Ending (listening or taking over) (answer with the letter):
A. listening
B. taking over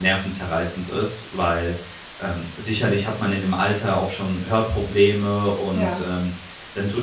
A